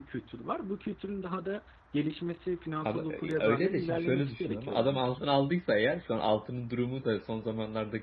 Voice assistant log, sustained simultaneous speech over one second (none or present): present